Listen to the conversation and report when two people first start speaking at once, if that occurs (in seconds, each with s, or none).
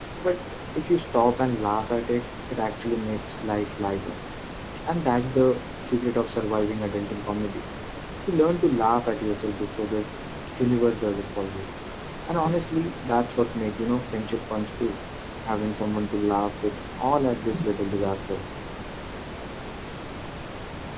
none